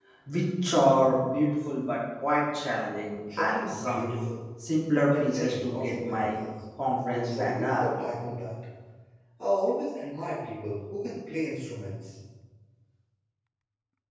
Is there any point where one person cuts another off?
Yes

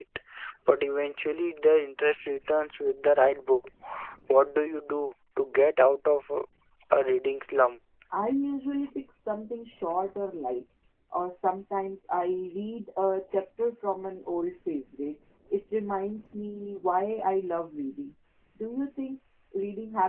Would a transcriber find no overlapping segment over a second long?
Yes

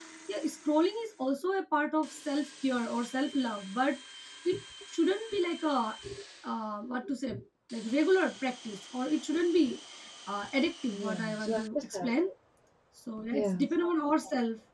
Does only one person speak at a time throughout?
No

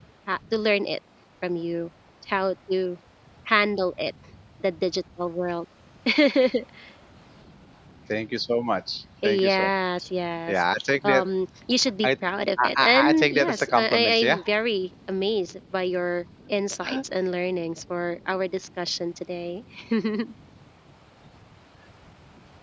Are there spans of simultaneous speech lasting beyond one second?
Yes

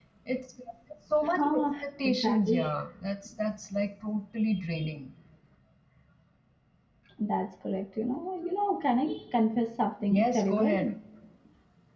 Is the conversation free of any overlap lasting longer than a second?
No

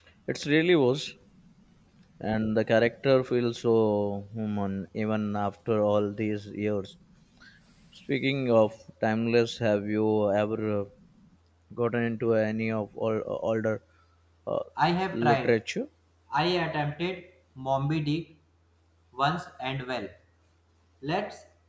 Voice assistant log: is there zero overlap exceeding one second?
Yes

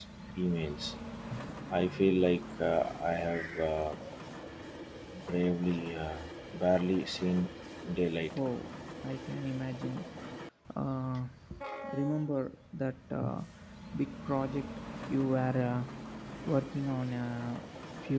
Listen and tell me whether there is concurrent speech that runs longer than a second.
No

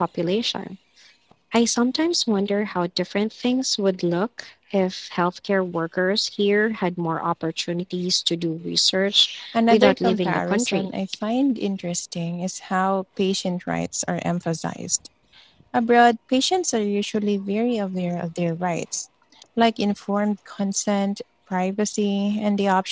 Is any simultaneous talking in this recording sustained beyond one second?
Yes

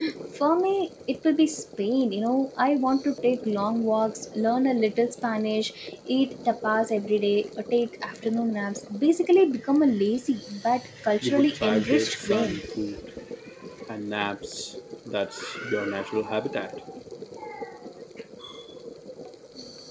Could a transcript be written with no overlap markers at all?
No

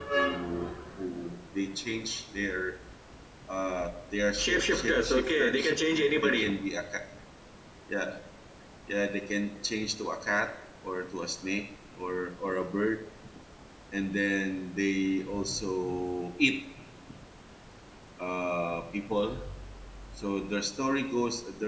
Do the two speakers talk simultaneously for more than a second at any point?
Yes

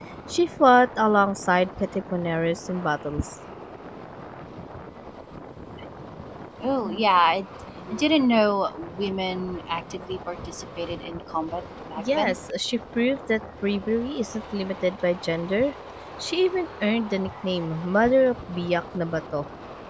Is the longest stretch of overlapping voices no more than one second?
Yes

